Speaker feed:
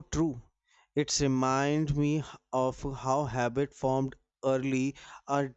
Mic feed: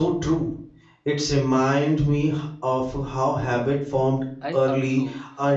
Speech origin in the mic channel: both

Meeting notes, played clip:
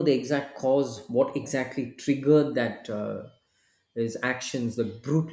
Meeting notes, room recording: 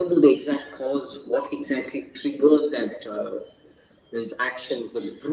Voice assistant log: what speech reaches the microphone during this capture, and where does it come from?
echo only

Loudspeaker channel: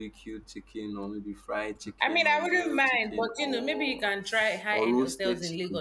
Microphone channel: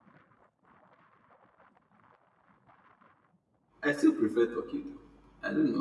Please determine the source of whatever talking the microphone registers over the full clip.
user only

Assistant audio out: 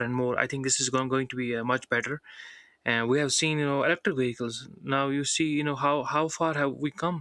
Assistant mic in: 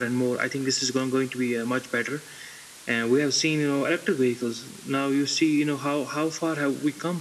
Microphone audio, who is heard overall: echo only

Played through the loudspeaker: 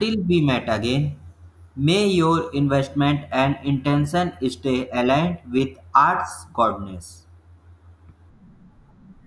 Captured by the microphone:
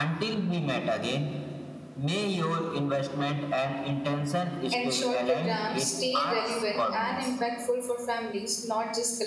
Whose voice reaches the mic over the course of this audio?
both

